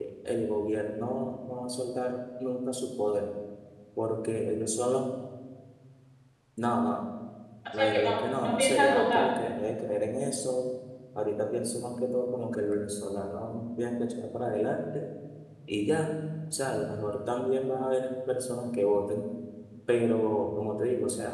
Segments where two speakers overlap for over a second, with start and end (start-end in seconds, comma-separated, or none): 7.8-9.3